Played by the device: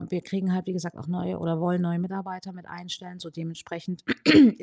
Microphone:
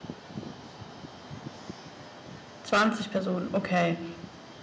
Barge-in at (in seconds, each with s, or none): 2.6 s